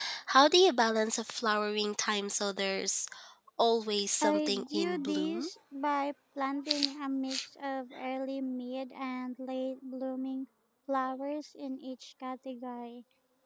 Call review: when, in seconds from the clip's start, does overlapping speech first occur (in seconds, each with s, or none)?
4.2 s